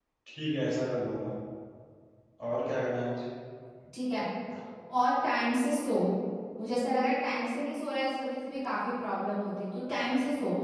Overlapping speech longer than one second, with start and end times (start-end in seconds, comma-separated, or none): none